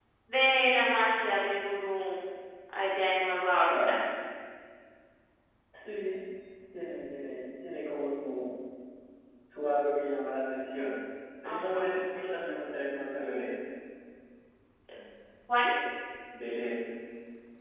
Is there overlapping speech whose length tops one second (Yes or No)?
No